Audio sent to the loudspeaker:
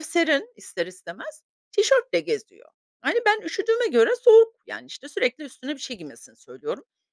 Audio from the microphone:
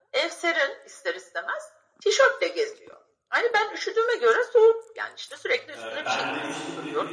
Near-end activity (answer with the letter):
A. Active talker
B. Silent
A